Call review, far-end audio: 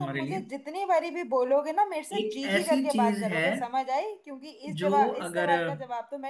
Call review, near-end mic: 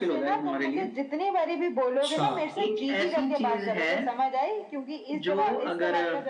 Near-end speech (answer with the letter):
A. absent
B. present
B